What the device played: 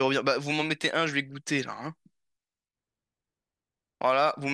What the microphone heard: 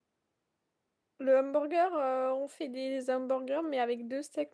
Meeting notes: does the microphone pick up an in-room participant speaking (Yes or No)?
Yes